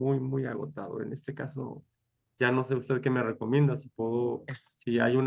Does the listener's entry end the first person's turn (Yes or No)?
No